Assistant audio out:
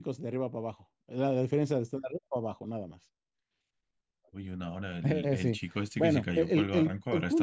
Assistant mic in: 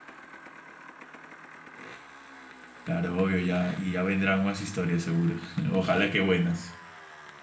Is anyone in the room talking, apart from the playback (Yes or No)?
Yes